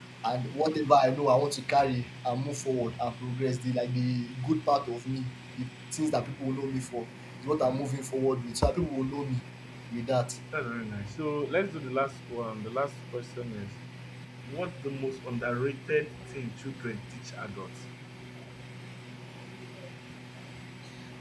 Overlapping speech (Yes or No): No